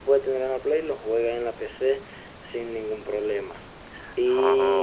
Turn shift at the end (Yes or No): No